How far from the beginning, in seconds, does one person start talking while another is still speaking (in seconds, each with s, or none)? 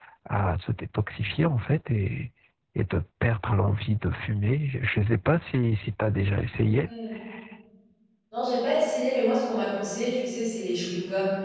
none